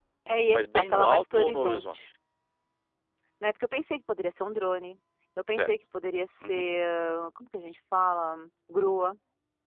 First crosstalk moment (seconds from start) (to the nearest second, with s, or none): 1 s